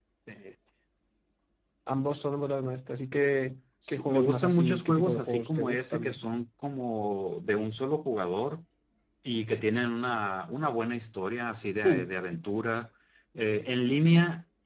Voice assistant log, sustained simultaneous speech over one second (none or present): present